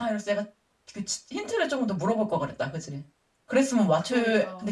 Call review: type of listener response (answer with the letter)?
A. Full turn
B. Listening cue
A